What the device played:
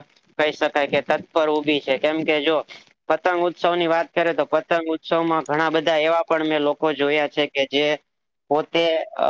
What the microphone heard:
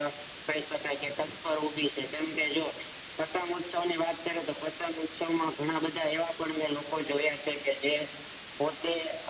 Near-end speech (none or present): none